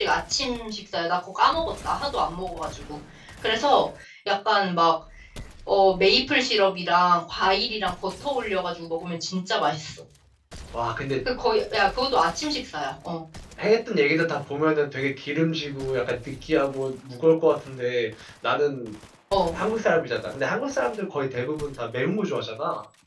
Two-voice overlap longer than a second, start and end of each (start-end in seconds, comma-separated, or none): none